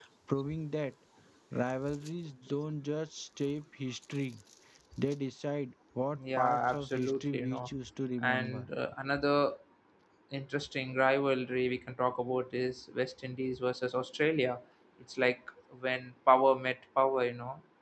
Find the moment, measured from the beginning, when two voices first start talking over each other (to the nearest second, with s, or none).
6 s